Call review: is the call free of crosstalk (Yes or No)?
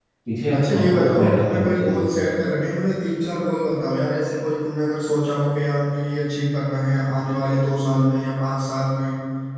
No